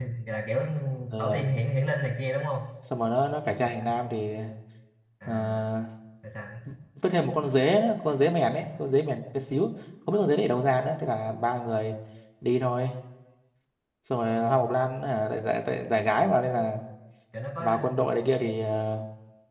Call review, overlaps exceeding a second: none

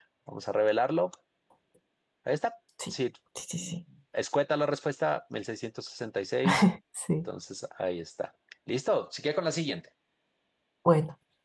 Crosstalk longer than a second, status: none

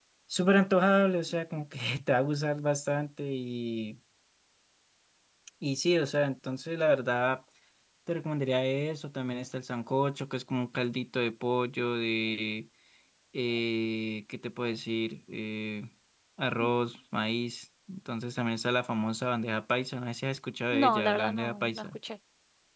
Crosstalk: present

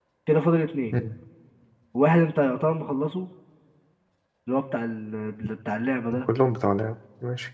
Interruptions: none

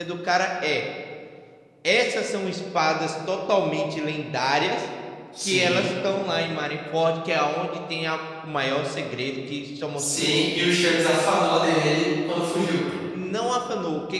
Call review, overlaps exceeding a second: none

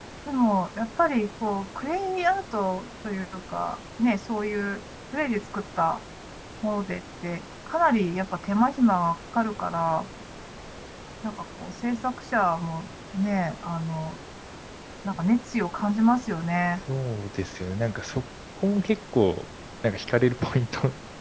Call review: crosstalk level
none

